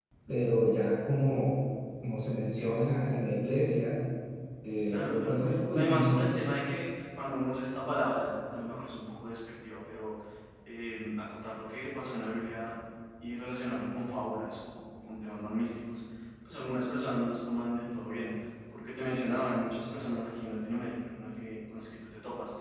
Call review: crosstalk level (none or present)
present